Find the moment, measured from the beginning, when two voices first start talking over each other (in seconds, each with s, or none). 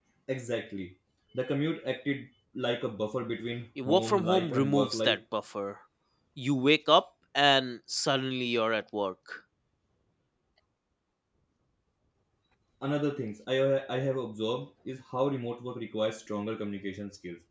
3.8 s